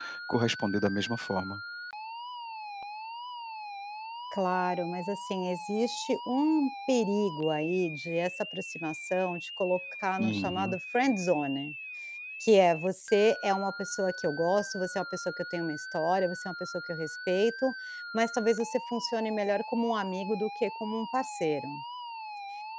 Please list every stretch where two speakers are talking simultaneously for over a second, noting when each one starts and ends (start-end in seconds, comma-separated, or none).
none